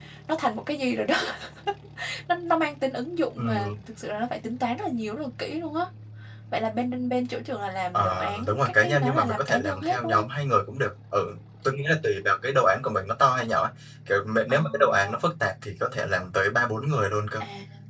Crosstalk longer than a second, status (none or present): present